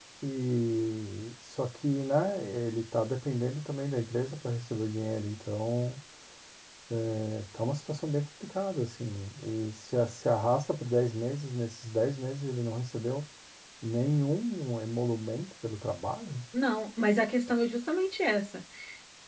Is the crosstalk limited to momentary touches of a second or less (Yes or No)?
Yes